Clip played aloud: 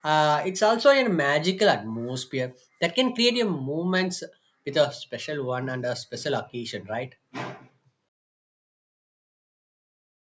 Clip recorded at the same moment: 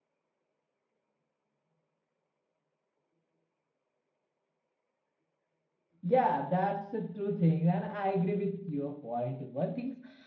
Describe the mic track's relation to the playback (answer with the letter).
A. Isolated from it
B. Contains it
A